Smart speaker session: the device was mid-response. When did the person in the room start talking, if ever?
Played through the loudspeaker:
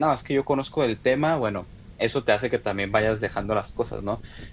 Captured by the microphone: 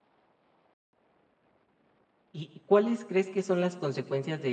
2 s

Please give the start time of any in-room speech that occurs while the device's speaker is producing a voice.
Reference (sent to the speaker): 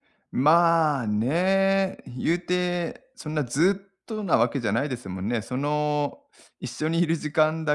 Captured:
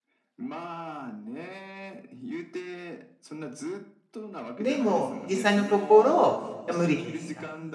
5 s

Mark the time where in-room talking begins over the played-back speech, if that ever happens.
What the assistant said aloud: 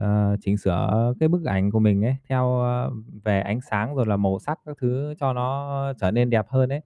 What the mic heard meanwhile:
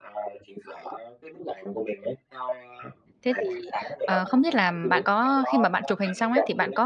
3 s

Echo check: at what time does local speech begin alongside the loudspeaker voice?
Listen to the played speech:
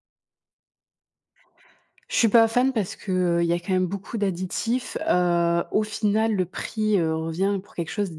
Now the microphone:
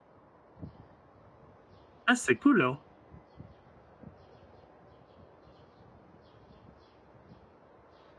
2 s

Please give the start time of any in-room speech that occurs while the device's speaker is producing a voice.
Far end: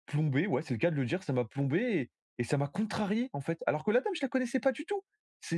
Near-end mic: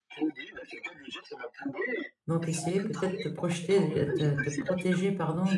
2 s

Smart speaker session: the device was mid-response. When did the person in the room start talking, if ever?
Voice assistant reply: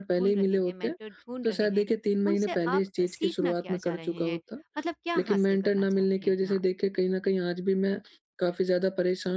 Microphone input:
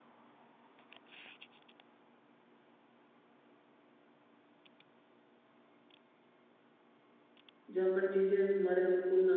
8 s

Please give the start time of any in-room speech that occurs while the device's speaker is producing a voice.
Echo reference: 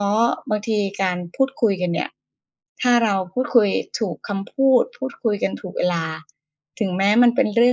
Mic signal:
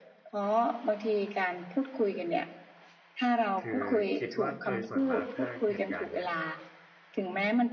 4 s

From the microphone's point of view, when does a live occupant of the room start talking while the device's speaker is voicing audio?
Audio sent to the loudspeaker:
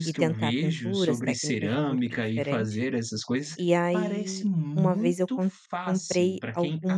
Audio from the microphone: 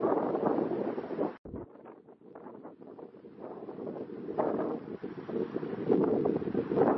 none

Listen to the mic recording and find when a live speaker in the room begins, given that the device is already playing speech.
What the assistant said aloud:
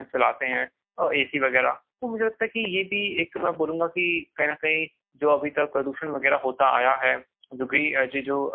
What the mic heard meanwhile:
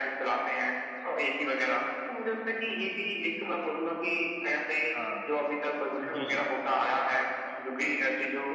5 s

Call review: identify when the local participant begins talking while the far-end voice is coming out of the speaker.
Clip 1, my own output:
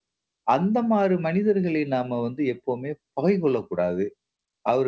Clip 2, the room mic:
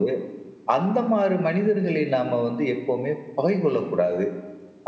none

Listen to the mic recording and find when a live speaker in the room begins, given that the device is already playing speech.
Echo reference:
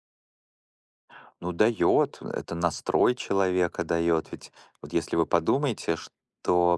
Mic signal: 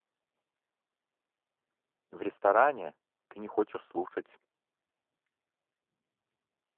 2 s

